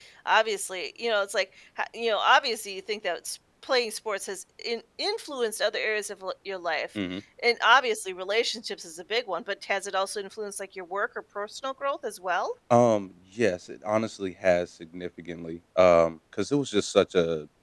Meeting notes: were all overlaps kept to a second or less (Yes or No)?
Yes